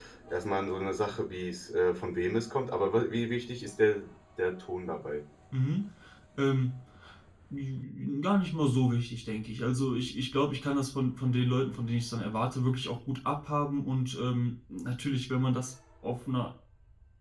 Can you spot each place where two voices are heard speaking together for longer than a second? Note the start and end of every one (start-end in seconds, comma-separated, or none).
none